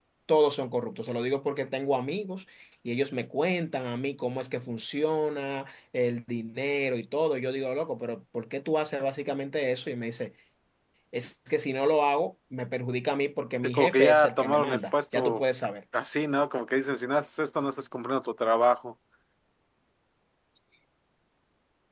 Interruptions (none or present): present